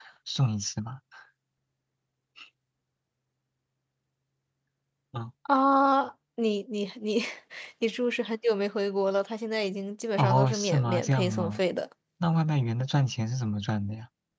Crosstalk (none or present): present